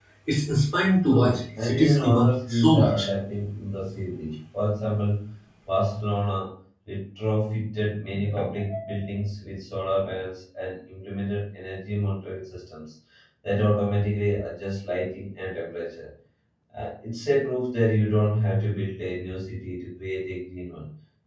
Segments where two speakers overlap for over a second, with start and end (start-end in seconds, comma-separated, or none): 1.1-3.1